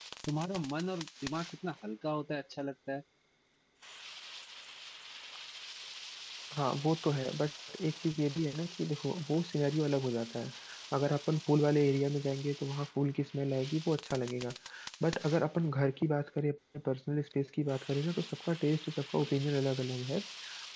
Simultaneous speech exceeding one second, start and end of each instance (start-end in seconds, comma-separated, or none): none